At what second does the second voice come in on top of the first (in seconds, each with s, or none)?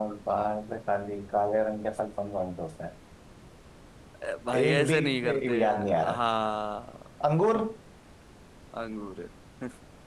4.6 s